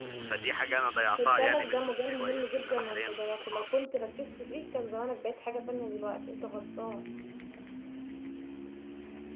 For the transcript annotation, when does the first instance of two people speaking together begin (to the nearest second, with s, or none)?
1 s